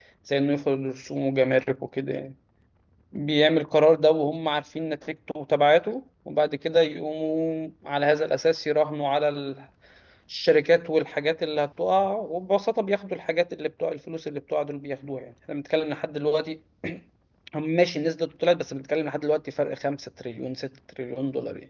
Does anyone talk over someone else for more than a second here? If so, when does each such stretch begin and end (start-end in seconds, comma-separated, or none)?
none